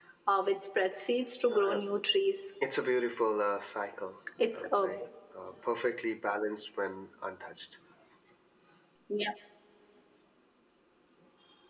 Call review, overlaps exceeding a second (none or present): none